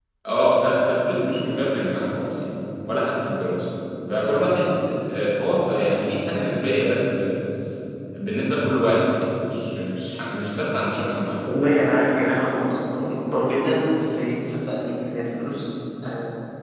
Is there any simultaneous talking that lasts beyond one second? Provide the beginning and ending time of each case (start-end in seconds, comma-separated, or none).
none